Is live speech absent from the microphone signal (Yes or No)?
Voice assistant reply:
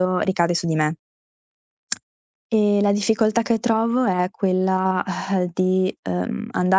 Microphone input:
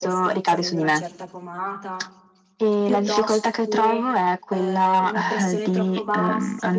No